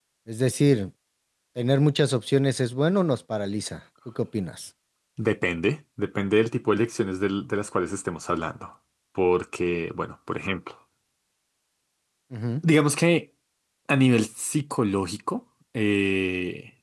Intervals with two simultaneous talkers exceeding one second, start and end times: none

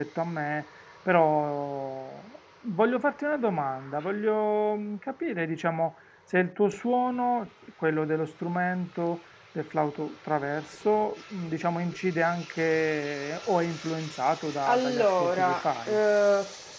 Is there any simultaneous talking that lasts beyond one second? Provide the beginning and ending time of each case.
14.7-16.0

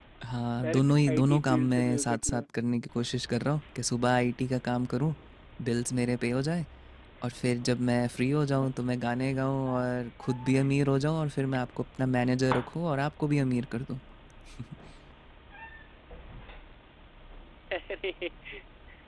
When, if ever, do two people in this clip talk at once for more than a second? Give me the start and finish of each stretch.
0.6-2.4

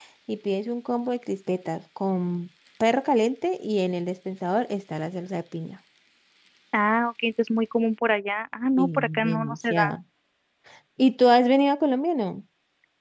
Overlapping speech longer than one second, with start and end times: 8.8-10.0

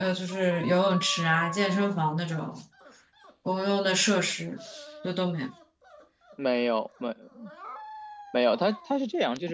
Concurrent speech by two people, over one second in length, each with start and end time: none

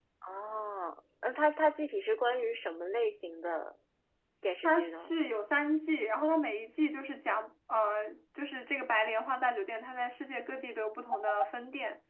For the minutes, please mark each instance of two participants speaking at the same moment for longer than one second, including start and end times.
none

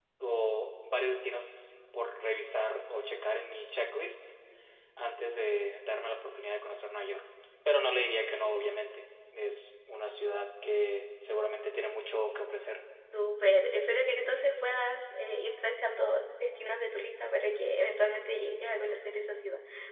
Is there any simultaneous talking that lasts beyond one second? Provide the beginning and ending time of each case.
none

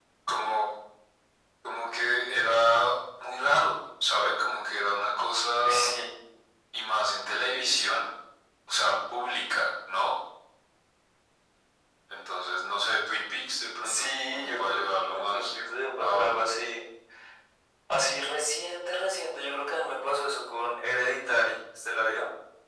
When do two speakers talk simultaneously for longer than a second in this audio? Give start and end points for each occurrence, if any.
13.8-15.5

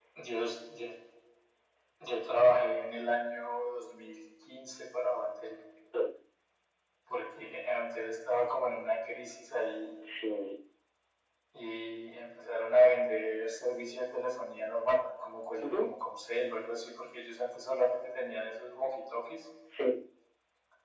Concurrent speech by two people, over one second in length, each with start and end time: none

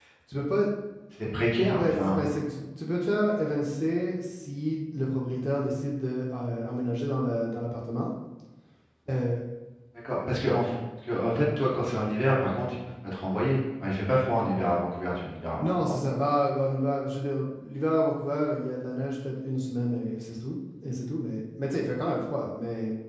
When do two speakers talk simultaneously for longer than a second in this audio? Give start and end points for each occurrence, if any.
none

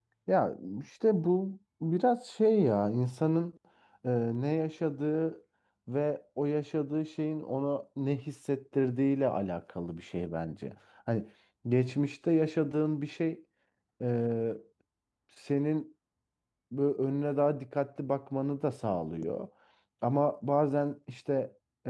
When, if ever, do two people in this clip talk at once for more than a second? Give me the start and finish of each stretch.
none

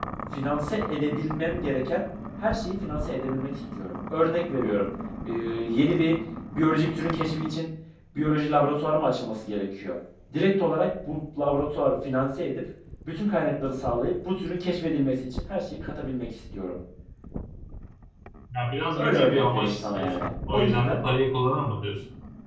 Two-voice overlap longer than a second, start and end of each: 18.9-21.0

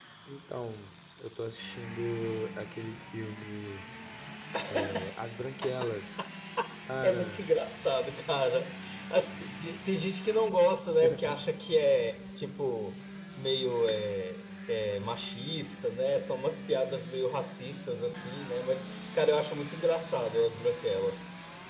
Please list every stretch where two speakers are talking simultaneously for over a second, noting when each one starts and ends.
none

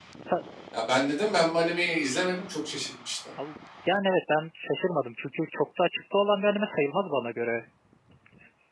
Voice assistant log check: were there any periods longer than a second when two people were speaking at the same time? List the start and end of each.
none

